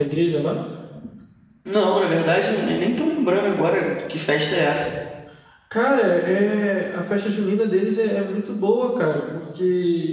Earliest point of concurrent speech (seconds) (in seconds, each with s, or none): none